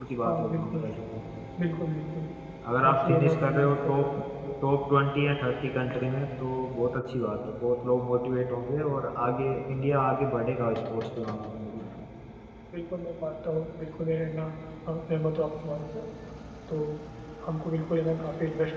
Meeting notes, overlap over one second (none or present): present